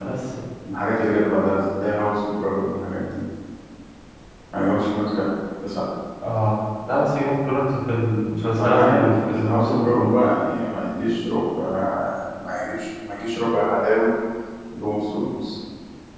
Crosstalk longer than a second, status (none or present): present